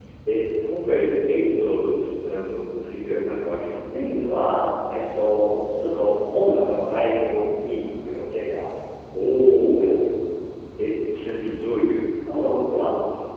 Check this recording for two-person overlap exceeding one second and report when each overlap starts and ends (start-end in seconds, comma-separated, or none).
none